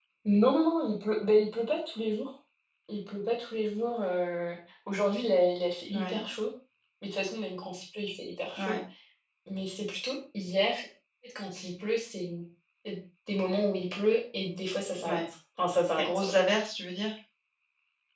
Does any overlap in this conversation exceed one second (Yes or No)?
No